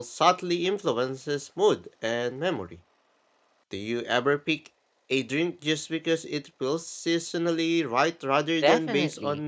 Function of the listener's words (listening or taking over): taking over